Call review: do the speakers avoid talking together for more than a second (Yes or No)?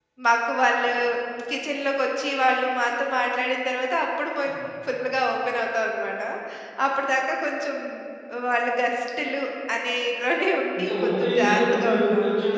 No